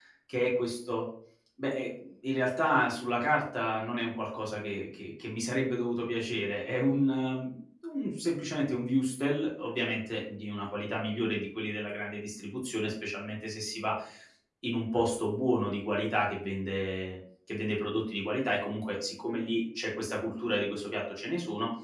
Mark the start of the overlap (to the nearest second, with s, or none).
none